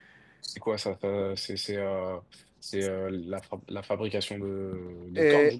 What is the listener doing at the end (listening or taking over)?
taking over